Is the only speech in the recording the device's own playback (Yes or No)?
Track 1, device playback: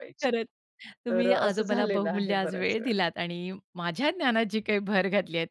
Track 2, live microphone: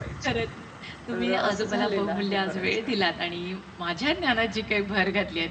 Yes